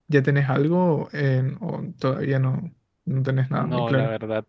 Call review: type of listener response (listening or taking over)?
taking over